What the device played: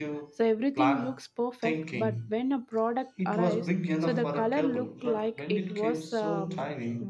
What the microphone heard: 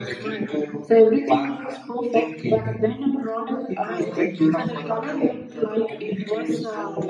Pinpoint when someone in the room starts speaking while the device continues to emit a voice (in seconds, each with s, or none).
none